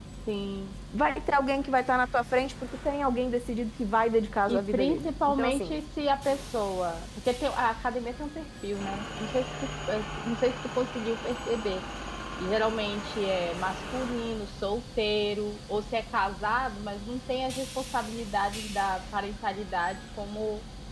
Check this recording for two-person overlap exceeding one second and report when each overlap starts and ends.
4.5-5.7

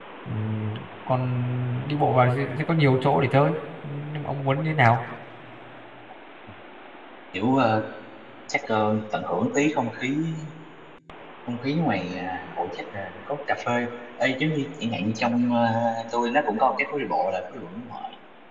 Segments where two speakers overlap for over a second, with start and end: none

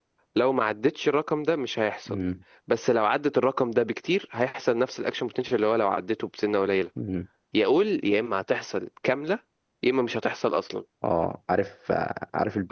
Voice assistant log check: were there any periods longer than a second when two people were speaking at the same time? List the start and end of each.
none

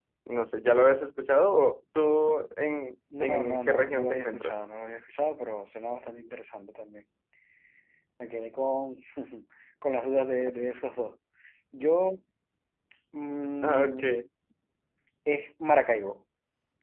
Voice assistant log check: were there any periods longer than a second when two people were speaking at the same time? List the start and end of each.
3.2-4.6

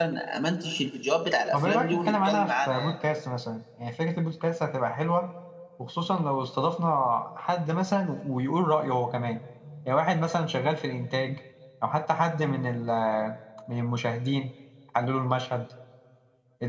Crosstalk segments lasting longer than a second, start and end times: 1.5-2.9

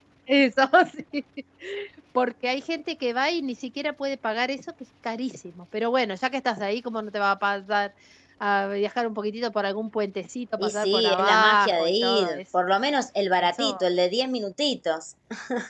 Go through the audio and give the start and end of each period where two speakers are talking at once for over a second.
10.6-12.4

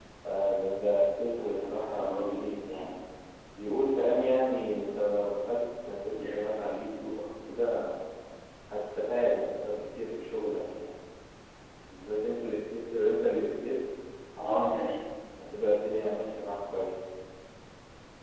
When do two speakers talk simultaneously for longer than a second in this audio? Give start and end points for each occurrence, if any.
1.4-2.9

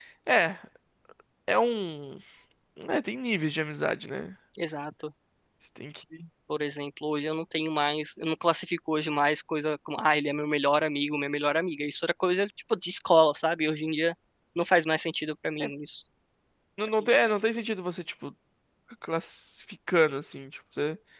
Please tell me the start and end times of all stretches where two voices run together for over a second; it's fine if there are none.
none

